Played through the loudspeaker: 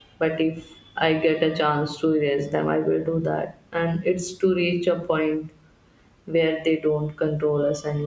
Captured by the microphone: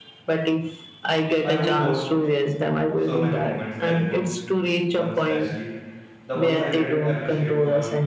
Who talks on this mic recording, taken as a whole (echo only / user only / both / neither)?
both